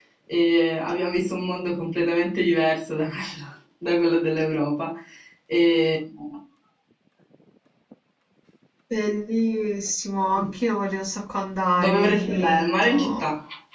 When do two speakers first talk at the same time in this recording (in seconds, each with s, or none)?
11.8 s